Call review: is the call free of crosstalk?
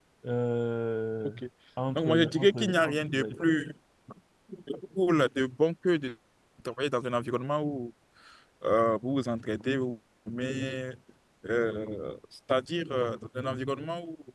No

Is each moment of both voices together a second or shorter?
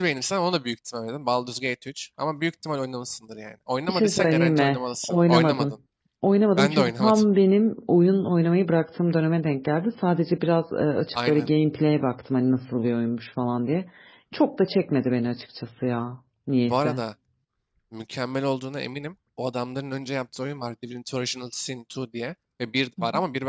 No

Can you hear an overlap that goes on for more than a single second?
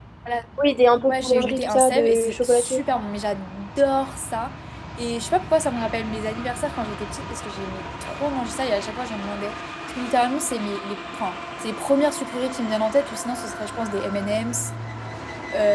Yes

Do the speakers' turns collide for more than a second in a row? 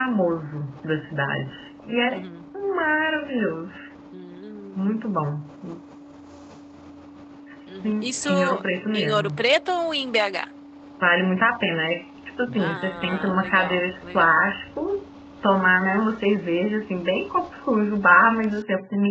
Yes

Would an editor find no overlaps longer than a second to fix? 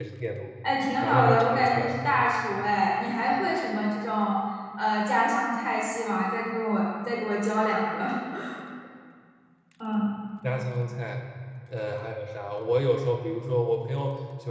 No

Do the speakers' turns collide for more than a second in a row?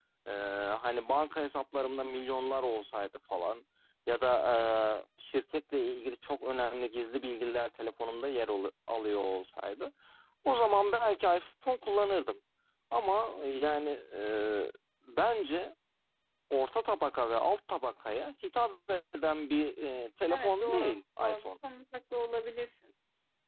Yes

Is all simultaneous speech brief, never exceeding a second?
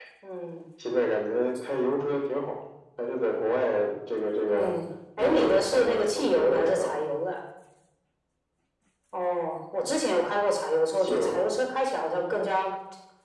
No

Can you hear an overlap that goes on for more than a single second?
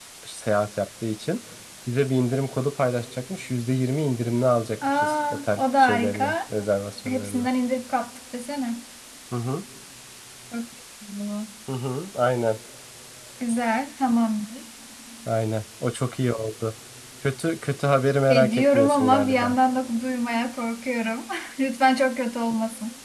Yes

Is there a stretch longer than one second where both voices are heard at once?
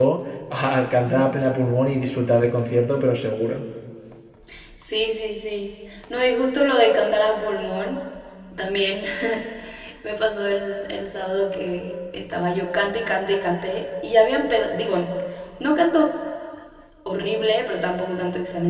No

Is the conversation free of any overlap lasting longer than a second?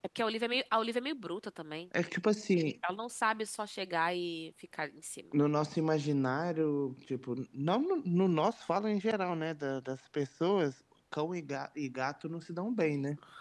Yes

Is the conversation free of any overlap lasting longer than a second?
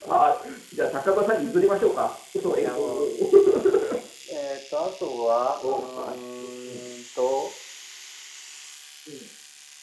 Yes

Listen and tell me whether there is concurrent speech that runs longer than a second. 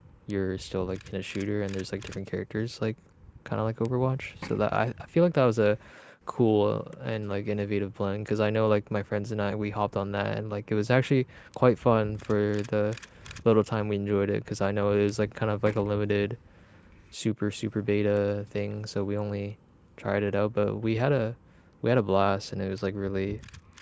No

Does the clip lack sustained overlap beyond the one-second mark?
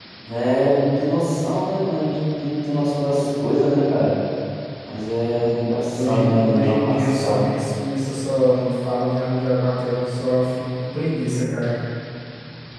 No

